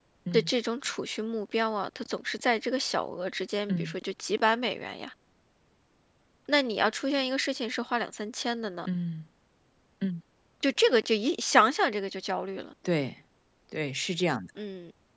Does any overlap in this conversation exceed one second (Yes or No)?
No